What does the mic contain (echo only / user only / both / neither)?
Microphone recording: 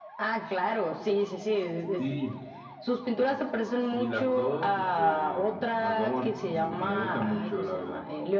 echo only